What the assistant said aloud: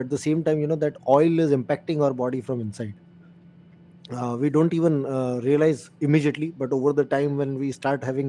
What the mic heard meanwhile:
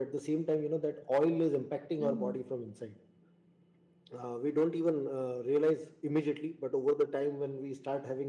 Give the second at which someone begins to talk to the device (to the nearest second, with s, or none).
2 s